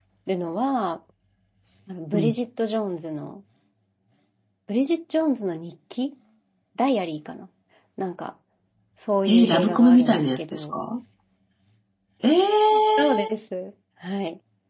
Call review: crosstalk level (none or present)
present